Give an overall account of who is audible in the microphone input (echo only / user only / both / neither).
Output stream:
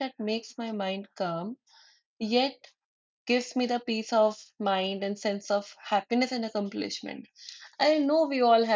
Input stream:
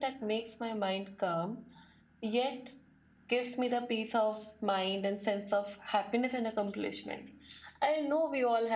echo only